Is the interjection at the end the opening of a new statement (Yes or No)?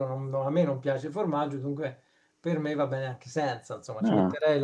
No